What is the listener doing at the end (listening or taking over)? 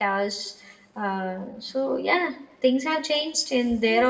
taking over